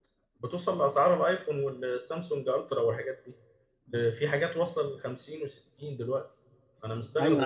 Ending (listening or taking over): taking over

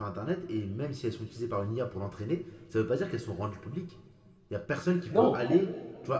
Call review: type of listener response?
listening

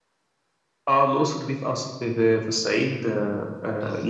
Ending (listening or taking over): listening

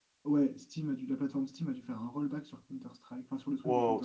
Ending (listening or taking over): taking over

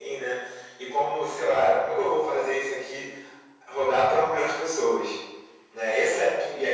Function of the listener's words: listening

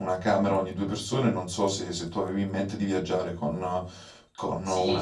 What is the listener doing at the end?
taking over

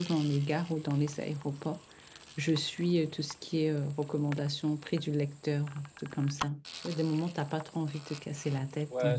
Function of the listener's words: taking over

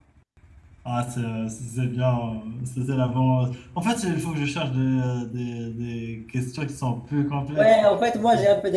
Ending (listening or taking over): taking over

